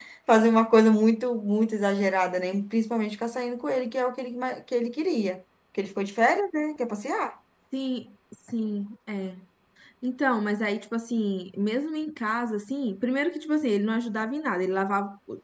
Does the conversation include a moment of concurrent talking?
No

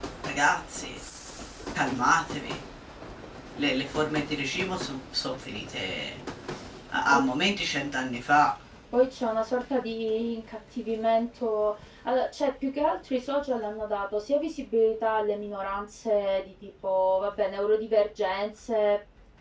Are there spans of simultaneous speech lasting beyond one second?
No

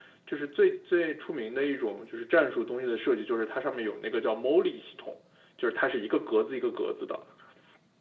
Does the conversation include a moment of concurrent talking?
No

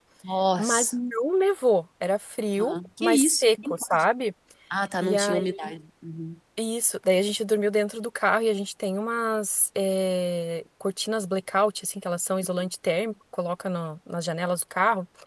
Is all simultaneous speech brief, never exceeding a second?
No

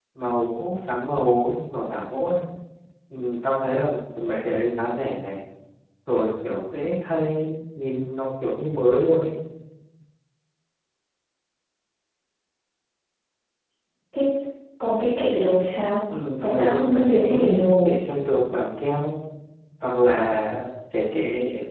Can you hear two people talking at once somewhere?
Yes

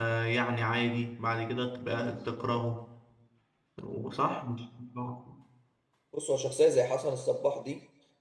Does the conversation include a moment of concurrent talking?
No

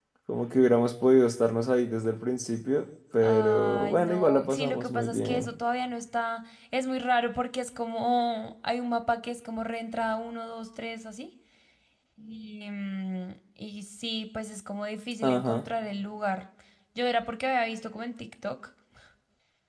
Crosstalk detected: Yes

